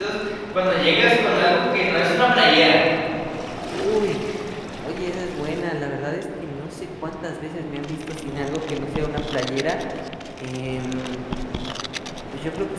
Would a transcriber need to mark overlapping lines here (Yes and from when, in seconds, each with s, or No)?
No